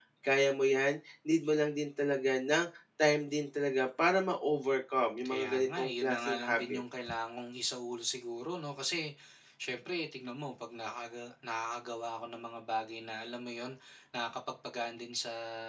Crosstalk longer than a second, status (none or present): present